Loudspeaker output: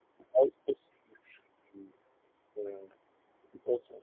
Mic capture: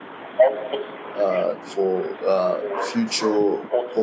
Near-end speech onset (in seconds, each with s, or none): 1.1 s